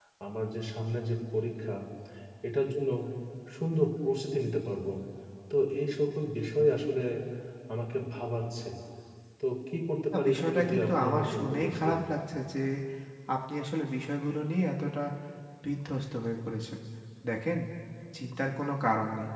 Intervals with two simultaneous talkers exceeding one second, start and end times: 10.1-12.0

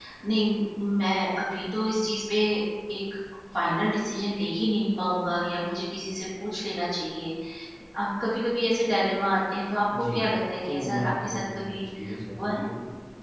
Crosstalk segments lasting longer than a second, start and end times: 10.6-11.9

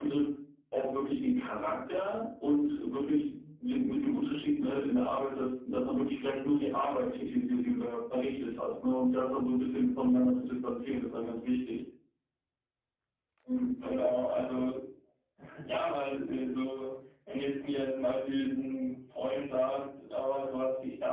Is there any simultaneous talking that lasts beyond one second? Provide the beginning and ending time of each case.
none

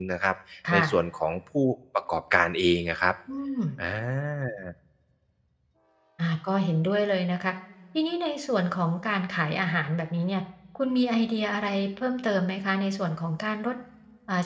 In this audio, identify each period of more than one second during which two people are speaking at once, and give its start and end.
none

